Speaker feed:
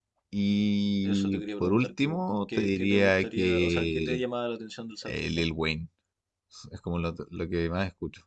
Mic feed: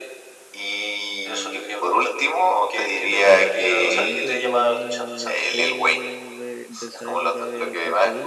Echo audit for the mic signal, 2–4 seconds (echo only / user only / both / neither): both